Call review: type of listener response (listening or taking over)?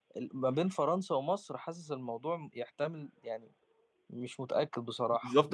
taking over